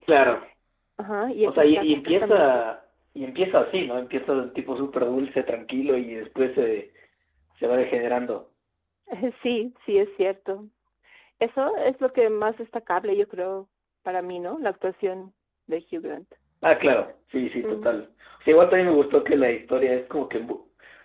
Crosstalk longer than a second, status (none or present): present